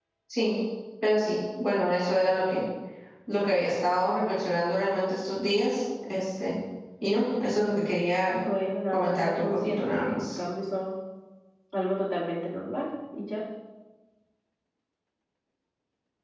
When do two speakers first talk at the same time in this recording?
8.9 s

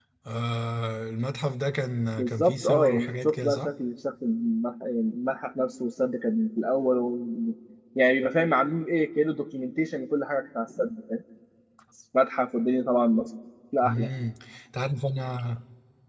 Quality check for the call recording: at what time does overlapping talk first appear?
2.2 s

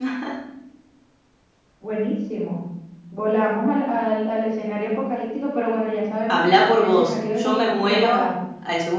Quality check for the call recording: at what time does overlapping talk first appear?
6.3 s

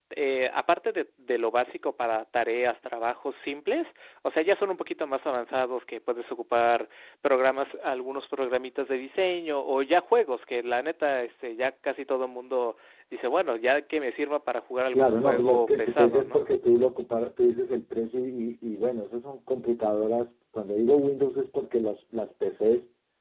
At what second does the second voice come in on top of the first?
14.9 s

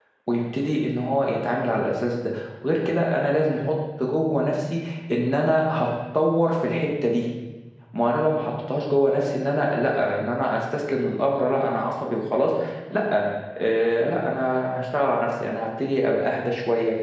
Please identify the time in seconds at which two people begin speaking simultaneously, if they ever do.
none

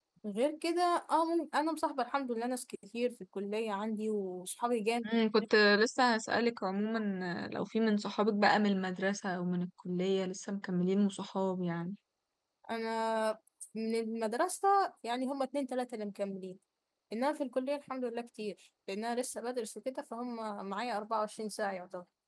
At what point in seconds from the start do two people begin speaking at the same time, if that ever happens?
none

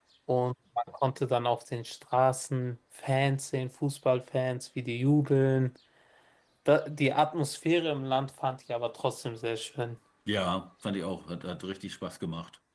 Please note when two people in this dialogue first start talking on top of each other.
none

